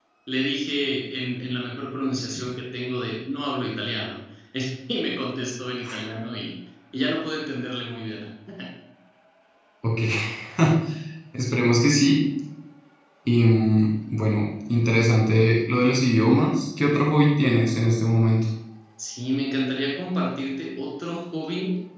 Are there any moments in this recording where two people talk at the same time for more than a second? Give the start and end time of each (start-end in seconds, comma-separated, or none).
none